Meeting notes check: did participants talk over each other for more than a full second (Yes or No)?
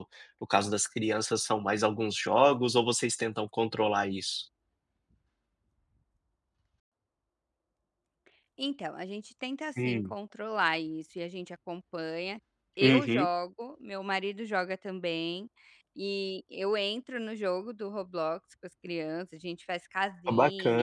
No